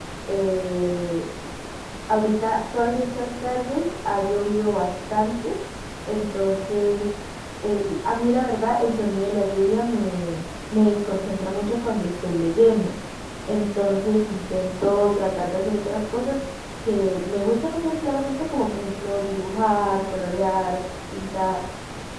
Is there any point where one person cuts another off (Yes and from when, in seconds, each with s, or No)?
No